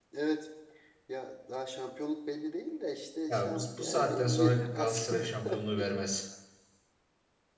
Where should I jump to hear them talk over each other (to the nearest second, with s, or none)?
3 s